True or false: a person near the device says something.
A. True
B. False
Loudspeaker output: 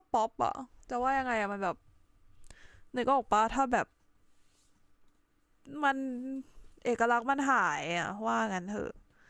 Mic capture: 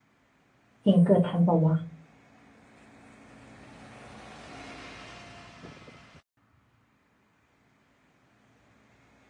A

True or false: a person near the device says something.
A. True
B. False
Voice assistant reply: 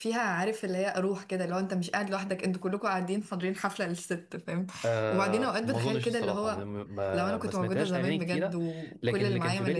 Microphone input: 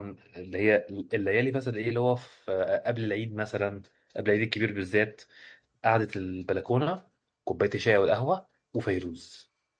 A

